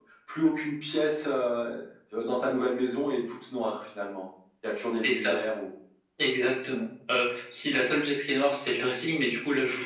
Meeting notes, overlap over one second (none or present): none